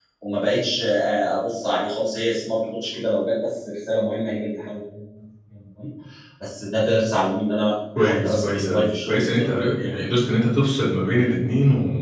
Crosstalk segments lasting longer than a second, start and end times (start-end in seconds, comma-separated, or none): 8.0-9.6